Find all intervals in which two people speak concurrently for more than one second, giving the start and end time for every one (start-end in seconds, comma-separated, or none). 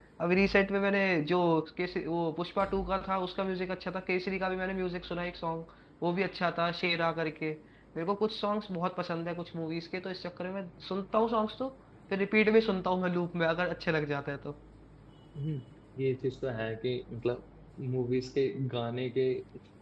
none